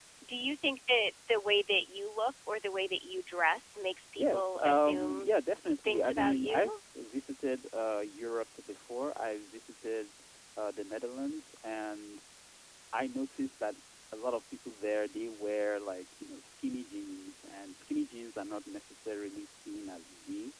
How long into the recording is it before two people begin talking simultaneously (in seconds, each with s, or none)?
4.2 s